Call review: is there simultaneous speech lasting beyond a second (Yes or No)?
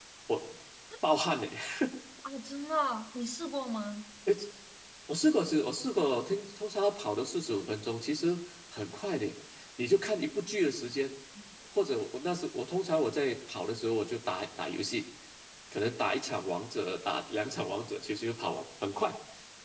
No